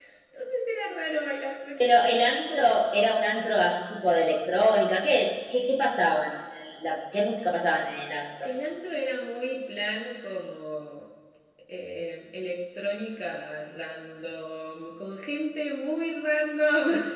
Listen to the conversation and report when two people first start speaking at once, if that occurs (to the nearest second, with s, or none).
none